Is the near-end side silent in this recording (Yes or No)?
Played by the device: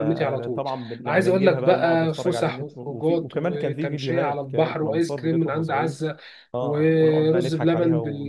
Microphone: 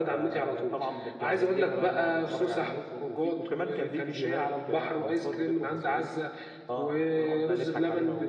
Yes